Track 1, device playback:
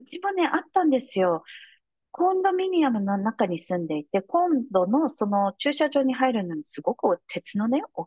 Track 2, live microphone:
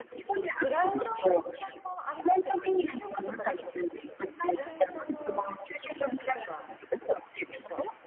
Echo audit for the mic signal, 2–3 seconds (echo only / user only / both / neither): both